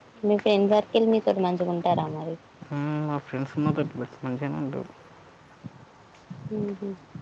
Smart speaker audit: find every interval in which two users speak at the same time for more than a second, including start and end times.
none

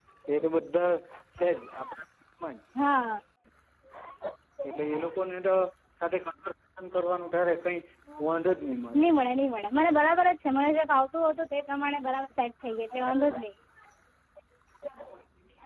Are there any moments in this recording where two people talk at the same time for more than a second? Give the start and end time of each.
none

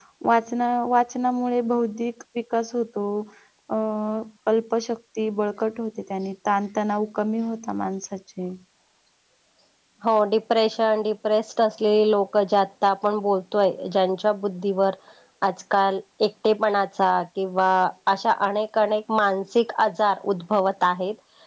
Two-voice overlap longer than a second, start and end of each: none

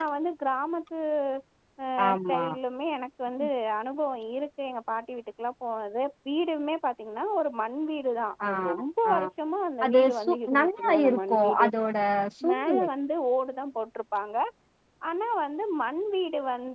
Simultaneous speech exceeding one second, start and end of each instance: 9.8-11.7

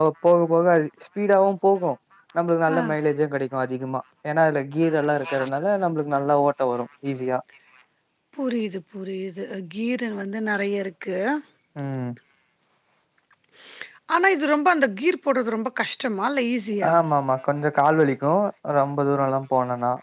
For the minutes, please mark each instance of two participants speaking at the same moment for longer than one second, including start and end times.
none

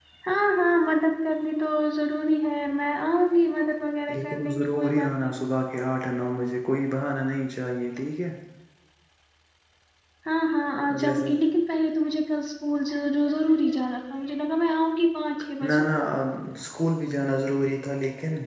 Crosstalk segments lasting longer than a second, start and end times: 4.1-5.3

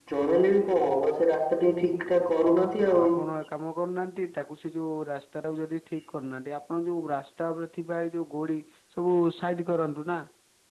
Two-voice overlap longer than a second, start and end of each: none

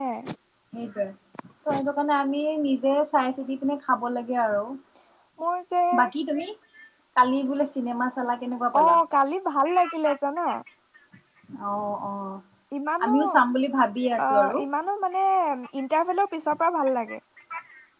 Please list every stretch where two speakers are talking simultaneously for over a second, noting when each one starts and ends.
none

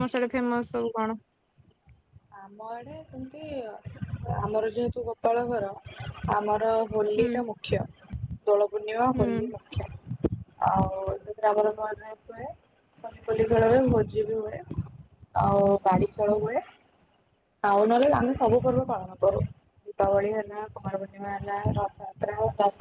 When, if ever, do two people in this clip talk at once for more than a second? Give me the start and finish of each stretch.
none

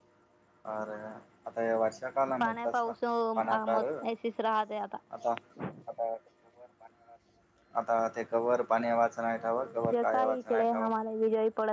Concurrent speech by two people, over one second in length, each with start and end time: 9.4-10.9

